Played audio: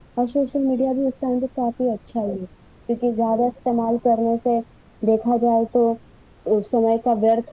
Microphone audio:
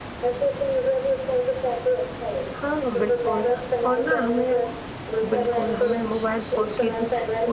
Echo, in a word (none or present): present